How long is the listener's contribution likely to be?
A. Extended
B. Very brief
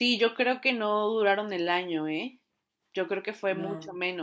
B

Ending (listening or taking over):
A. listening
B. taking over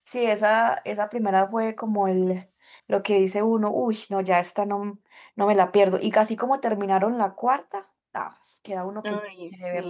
B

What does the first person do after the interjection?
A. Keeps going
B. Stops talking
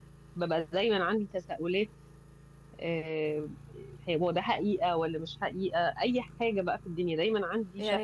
B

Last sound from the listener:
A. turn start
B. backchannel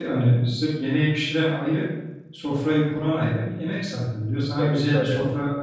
B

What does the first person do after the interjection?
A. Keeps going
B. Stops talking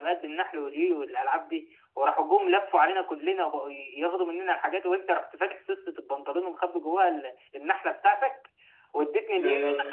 A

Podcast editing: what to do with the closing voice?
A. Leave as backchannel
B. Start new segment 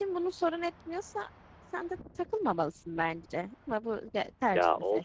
B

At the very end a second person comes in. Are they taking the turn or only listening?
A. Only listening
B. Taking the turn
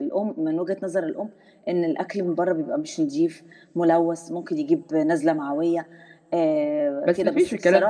B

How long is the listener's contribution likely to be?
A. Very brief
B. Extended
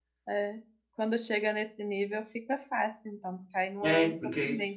B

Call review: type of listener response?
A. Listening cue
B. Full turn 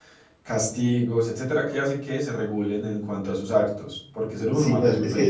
B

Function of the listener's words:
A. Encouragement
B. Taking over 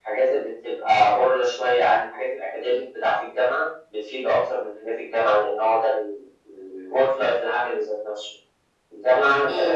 A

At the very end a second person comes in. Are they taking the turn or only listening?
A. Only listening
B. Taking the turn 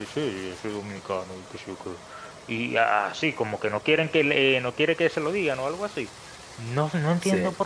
A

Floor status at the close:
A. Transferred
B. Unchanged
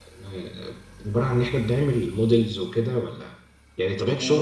B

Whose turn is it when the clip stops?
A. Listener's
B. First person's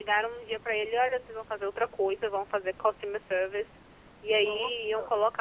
B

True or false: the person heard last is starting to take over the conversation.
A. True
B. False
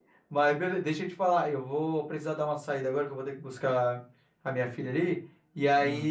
B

